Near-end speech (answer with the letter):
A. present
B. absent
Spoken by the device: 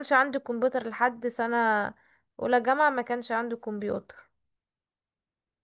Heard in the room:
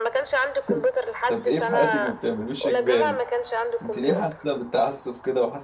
A